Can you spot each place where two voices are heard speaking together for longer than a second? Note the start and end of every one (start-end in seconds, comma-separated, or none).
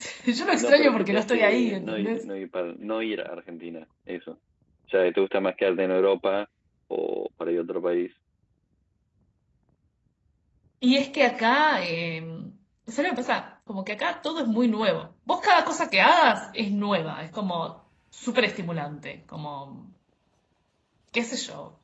0.6-2.3